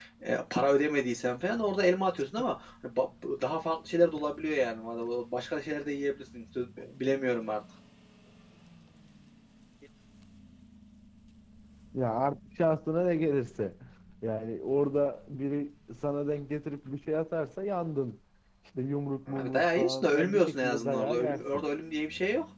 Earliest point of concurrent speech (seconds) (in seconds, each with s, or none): 19.3 s